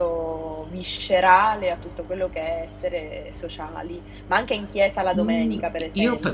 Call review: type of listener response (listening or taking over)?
taking over